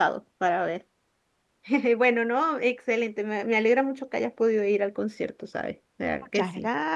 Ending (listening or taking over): taking over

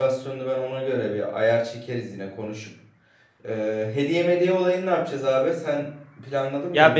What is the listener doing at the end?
taking over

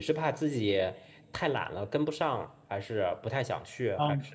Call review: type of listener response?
taking over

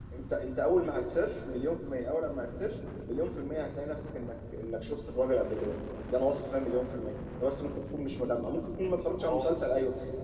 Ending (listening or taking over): listening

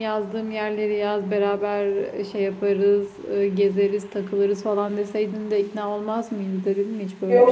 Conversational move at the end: taking over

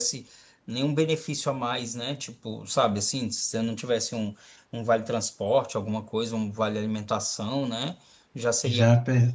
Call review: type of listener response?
listening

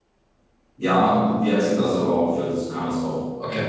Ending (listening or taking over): listening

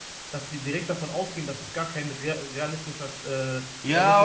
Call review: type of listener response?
taking over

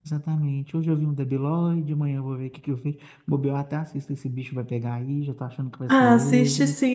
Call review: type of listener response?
taking over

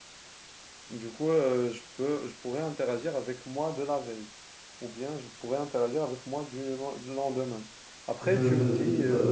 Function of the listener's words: taking over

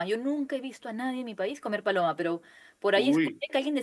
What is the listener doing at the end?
listening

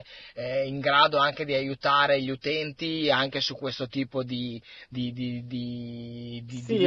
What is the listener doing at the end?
taking over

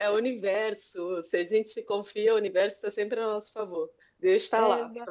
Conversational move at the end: listening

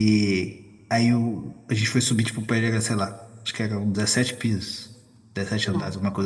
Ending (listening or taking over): listening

